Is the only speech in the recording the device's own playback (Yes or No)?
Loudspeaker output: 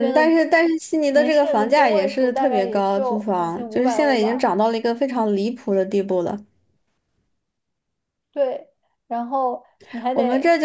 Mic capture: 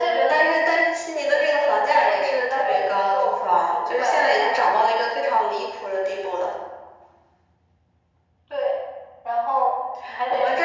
Yes